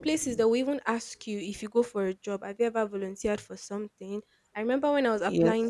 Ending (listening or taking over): taking over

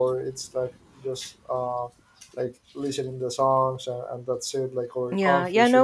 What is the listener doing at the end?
taking over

